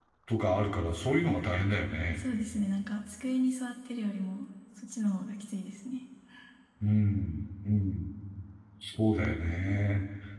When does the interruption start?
none

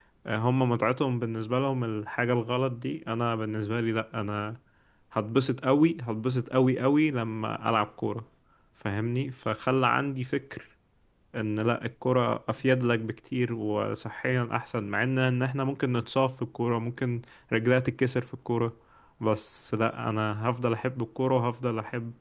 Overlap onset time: none

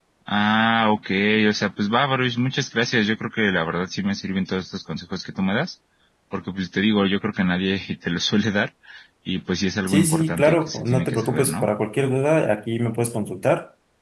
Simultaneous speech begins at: 10 s

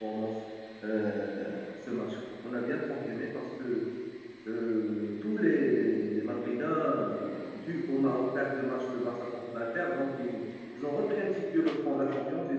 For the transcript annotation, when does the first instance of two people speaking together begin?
none

